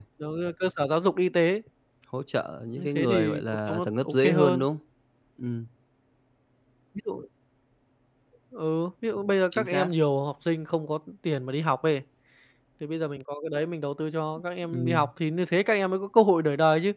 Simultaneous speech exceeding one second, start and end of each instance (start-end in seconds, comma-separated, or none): 2.8-4.7